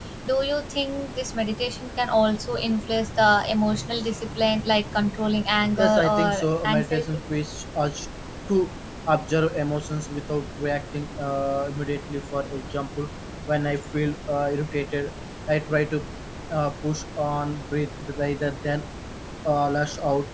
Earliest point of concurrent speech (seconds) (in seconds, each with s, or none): 5.8 s